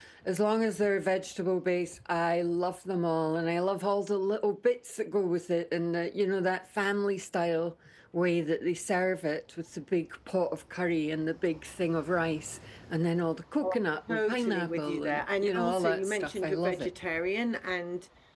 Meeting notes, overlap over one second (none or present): present